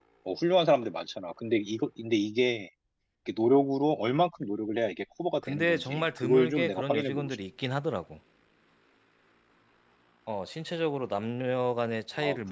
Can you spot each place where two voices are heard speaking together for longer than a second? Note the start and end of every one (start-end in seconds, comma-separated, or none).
5.5-7.4